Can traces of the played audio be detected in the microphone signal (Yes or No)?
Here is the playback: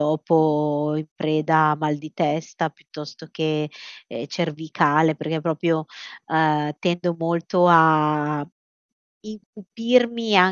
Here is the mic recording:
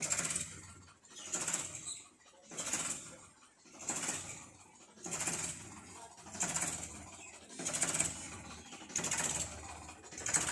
No